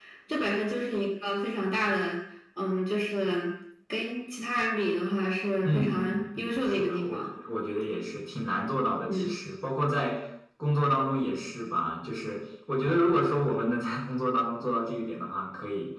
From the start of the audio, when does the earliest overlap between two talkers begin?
6 s

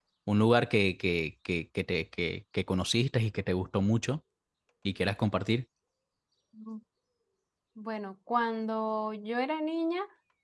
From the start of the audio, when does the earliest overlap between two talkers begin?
none

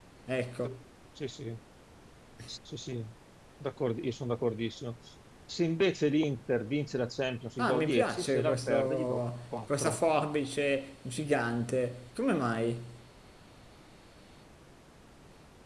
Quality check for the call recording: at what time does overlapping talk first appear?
8 s

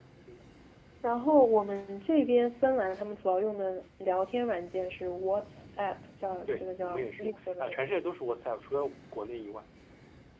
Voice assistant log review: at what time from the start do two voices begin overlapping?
6 s

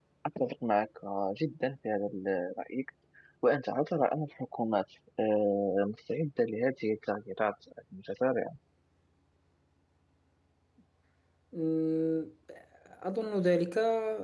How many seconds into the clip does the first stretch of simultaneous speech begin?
none

